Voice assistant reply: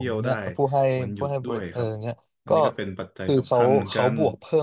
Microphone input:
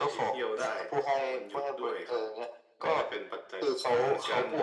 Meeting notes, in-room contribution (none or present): none